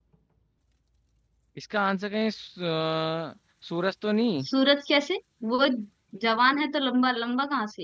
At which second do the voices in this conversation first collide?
none

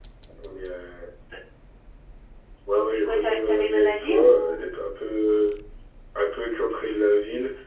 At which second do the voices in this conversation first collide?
3.0 s

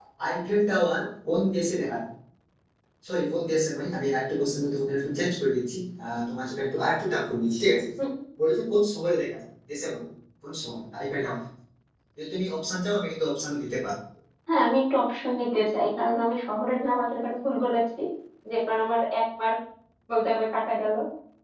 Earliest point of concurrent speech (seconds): none

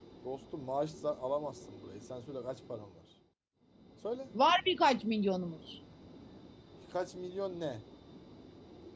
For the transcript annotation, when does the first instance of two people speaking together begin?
none

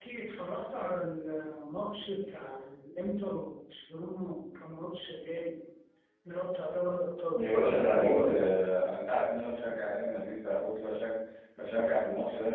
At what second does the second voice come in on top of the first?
7.3 s

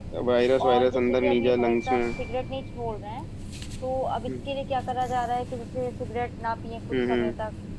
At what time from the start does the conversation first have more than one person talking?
0.6 s

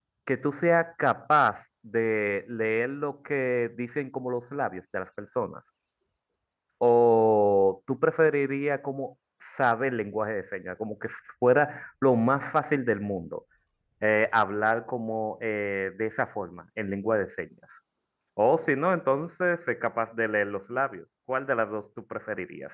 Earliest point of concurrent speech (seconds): none

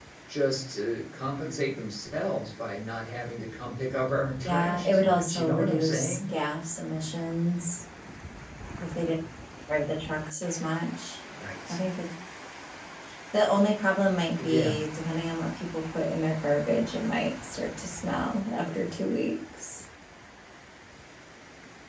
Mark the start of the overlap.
4.4 s

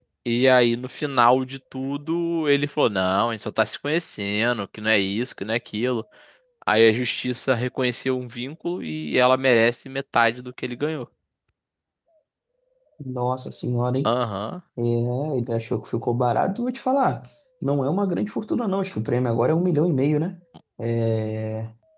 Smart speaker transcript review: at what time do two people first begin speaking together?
none

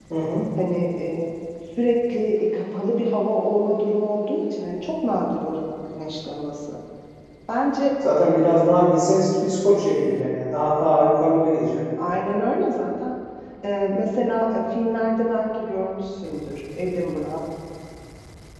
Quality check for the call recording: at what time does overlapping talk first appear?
none

